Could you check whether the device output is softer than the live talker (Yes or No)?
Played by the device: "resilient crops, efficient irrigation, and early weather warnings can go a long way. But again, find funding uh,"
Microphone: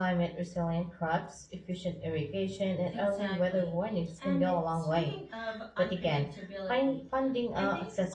No